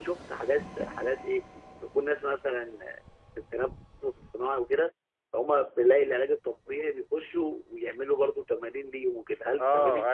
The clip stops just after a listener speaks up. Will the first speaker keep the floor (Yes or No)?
No